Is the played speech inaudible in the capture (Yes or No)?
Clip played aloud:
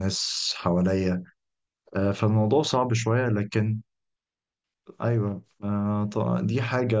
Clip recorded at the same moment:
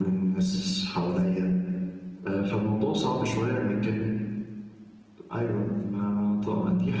No